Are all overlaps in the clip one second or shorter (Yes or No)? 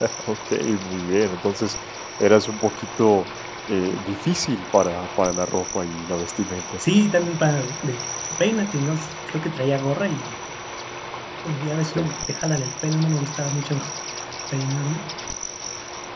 Yes